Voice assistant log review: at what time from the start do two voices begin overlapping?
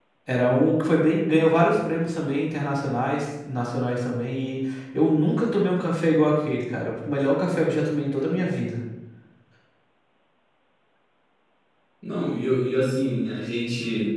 none

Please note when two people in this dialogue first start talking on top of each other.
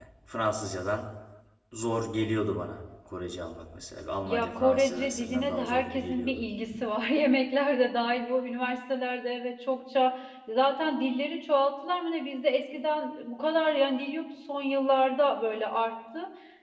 4 s

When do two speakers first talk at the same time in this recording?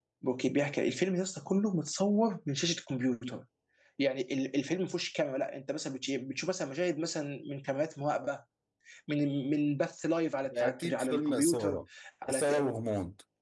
11 s

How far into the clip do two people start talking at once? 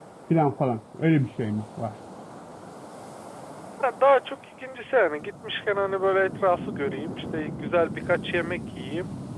none

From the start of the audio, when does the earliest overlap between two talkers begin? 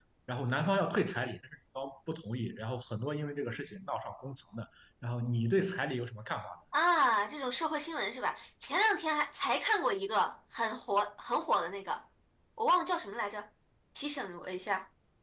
none

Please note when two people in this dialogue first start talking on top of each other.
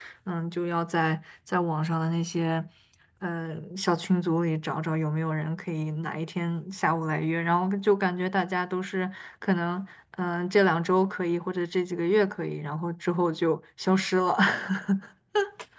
none

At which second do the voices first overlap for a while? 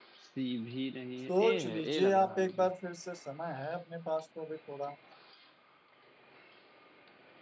1 s

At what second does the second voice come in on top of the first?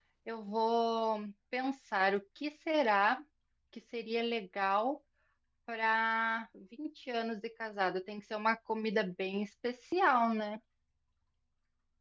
none

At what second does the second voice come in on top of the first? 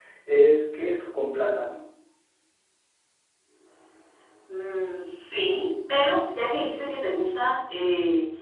none

